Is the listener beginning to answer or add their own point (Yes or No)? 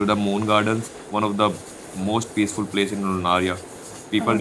No